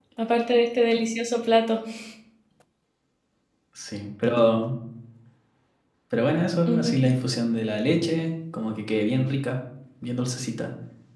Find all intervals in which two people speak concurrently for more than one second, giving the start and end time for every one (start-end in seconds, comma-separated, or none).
none